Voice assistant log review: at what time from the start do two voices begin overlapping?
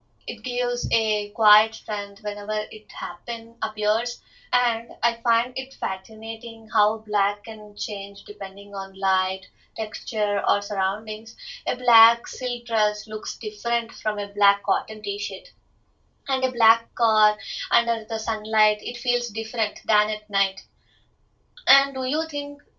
none

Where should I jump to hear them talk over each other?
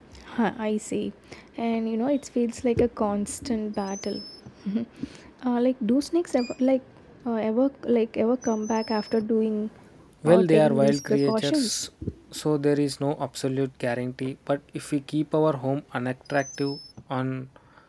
10 s

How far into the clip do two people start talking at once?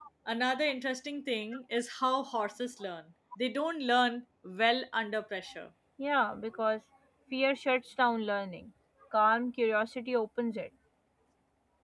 none

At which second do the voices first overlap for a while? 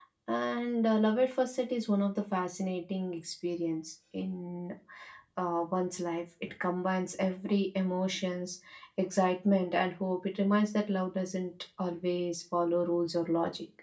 none

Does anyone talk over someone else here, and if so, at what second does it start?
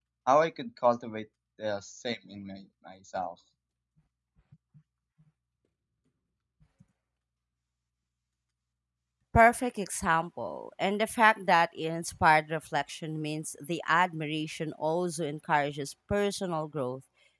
none

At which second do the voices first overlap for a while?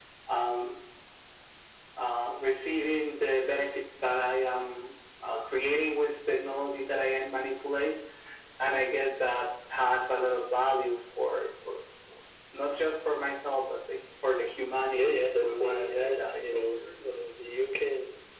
15 s

